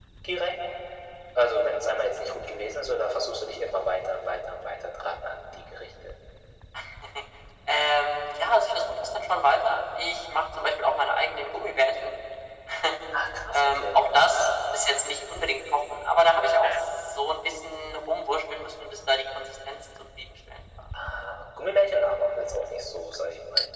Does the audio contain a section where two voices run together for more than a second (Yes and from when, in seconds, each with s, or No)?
No